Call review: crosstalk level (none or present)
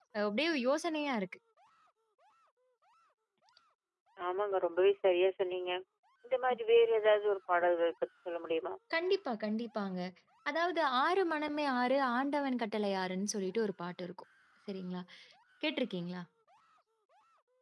none